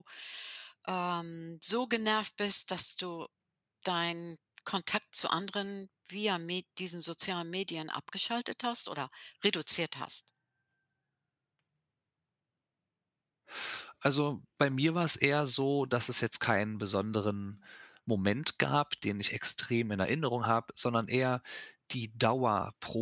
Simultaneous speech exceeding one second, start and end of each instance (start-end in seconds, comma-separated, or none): none